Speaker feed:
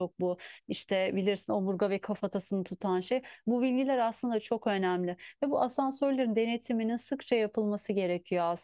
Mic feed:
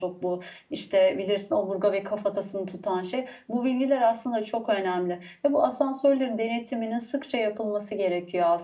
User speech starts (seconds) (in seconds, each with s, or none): none